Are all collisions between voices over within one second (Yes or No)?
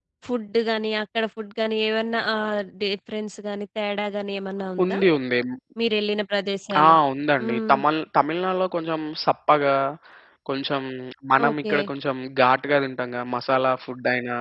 Yes